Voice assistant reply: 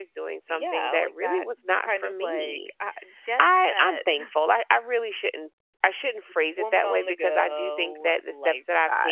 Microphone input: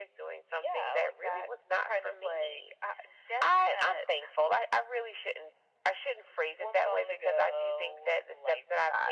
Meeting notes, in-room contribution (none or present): none